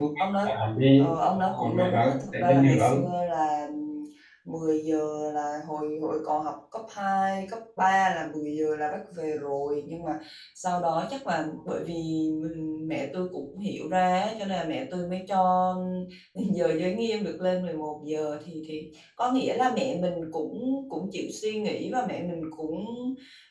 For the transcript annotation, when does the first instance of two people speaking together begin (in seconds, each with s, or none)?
1.0 s